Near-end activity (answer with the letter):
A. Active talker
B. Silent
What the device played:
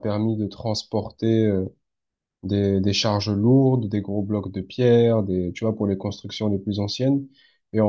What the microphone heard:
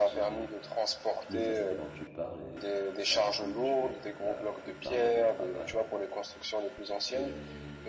A